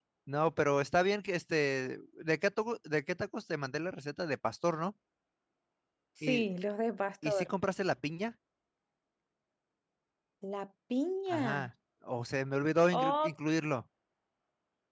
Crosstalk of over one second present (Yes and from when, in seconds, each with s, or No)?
No